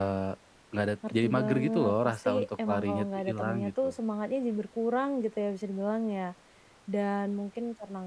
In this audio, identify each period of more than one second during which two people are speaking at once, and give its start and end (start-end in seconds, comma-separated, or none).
1.1-3.9